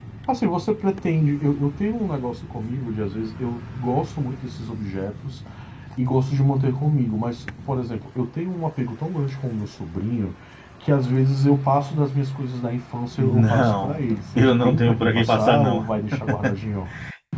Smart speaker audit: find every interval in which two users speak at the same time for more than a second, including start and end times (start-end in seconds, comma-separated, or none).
13.2-15.8